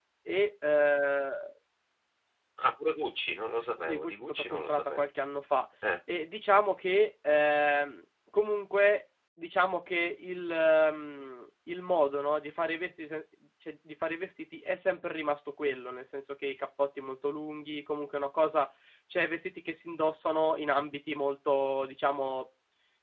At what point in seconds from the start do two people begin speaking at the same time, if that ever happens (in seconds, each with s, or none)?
3.8 s